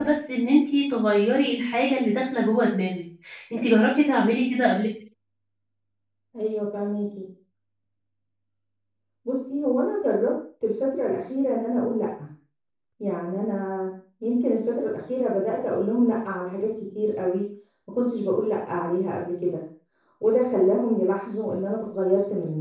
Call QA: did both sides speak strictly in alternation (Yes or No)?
Yes